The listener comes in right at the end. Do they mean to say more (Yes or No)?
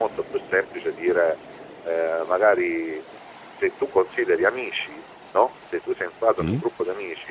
No